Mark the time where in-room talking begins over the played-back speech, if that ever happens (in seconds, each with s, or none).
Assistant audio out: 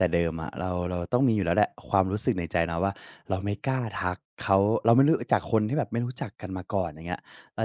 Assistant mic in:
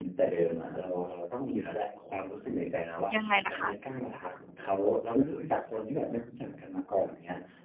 3.1 s